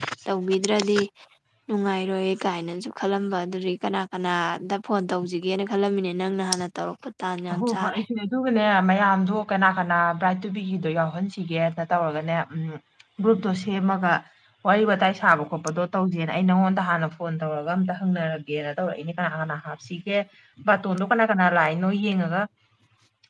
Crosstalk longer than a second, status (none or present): none